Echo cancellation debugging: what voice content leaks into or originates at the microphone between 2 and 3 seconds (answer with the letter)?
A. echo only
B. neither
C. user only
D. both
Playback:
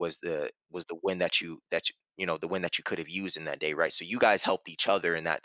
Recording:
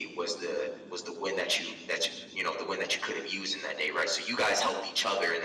A